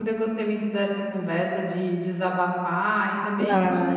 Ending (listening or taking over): listening